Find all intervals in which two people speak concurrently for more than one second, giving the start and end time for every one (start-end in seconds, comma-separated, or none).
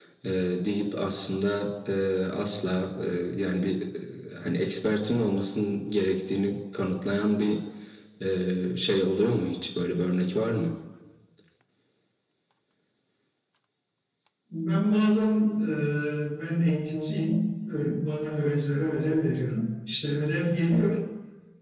none